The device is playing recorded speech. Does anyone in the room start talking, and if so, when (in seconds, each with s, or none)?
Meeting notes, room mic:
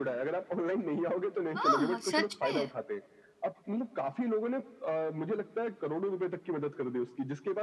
1.6 s